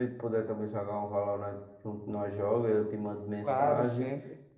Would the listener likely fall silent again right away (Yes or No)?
Yes